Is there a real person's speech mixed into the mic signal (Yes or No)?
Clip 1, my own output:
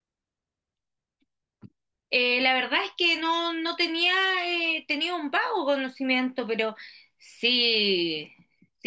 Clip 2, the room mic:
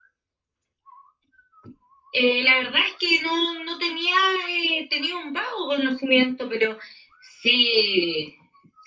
No